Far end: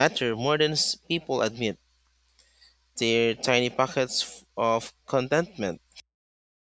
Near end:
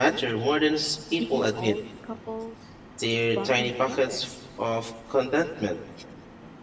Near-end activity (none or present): present